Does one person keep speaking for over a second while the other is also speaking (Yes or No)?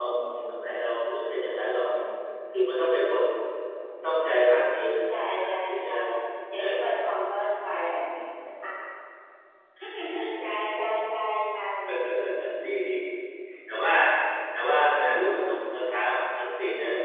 Yes